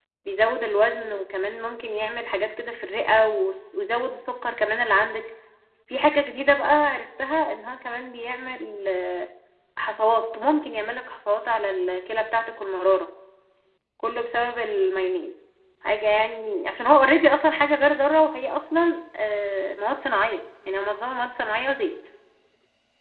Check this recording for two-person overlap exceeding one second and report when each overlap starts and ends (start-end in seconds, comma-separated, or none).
none